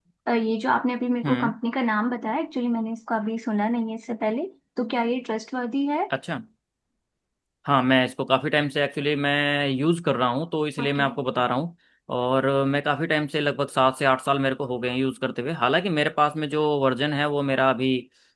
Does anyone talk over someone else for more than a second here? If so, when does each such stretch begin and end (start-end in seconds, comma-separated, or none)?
none